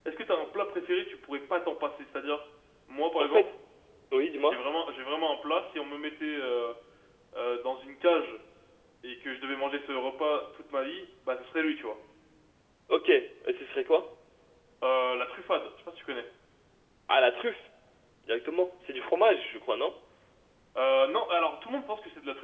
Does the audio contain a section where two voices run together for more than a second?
No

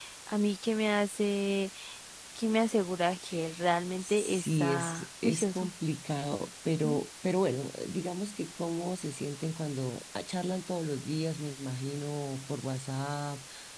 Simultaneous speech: Yes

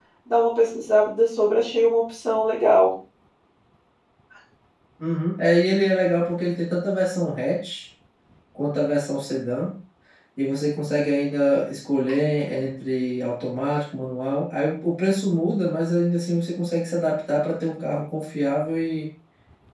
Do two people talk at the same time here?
No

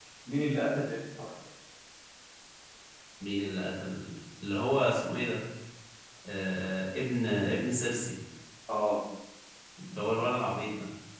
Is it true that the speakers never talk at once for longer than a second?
Yes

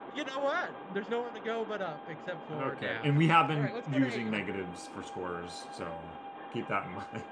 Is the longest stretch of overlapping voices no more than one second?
No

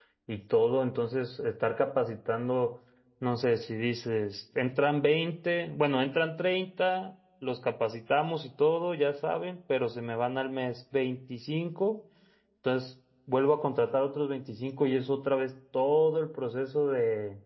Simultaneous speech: No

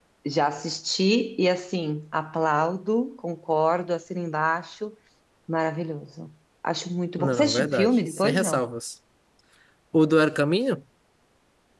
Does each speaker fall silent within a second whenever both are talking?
No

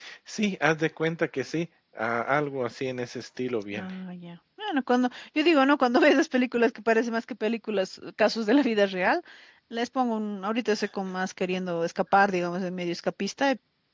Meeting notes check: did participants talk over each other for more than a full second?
No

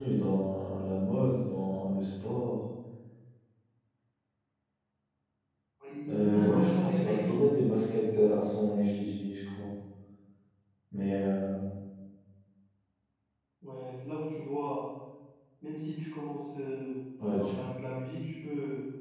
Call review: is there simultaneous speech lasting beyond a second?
Yes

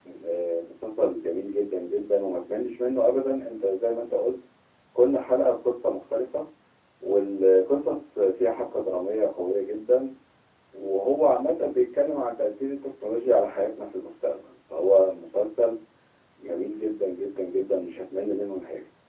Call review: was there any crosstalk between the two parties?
No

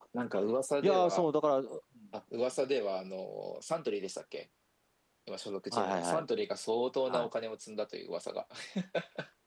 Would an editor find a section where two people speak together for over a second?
No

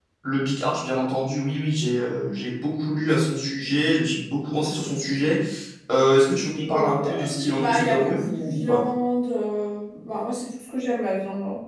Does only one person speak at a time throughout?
No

